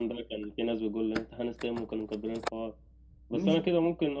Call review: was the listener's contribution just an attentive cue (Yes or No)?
Yes